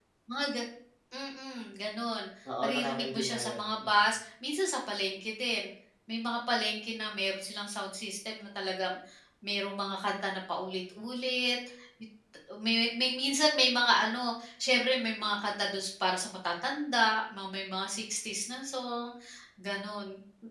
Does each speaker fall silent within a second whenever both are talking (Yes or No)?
No